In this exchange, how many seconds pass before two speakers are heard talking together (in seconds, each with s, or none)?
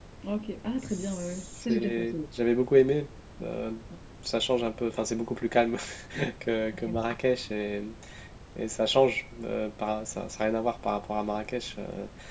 0.8 s